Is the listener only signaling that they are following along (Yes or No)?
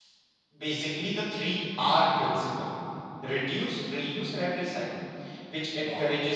Yes